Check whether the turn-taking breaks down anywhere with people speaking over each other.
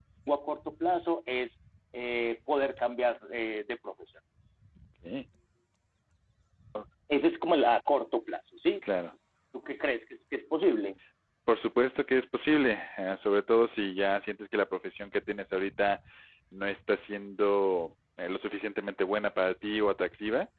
No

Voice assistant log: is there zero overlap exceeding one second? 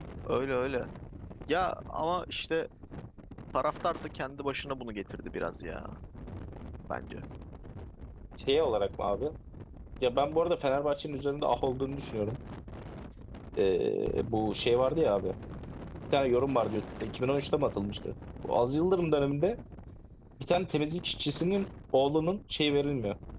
Yes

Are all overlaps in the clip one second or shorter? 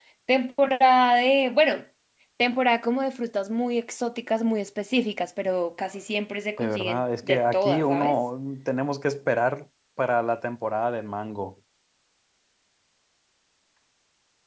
No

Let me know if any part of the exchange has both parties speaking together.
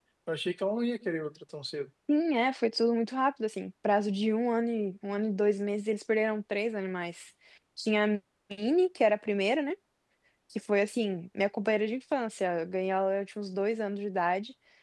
No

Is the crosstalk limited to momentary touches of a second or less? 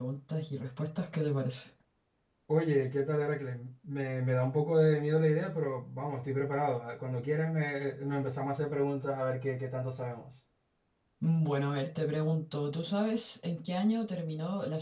Yes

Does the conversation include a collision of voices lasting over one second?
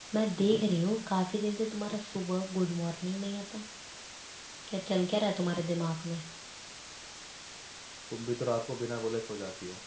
No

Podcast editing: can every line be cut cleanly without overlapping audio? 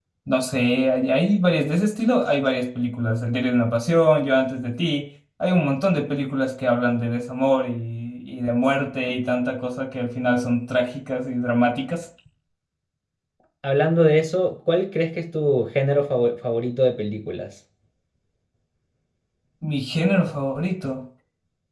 Yes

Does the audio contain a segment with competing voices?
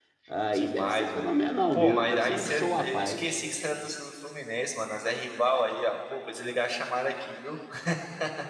Yes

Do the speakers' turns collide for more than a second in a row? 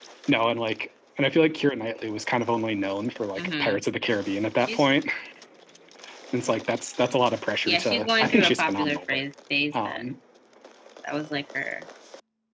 Yes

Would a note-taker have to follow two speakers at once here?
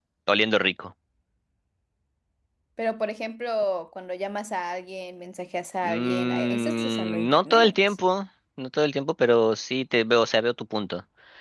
Yes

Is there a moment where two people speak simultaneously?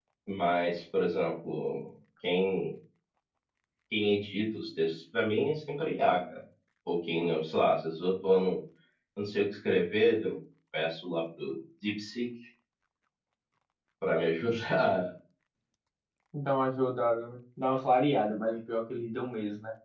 No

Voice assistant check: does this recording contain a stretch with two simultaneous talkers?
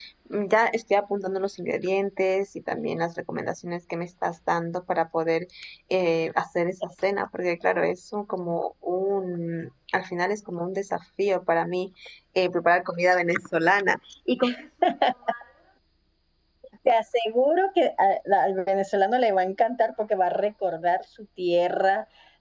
No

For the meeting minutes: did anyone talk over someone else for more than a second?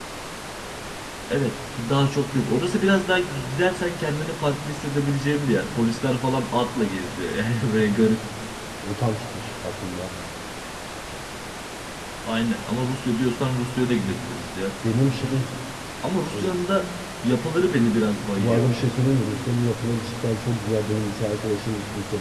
No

